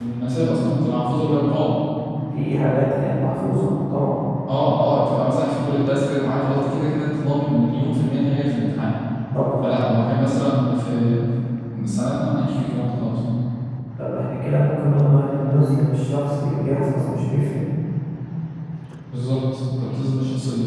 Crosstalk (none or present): none